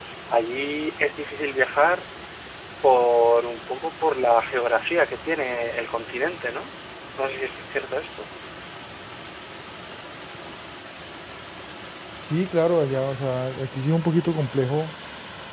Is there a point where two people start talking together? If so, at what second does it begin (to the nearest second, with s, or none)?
none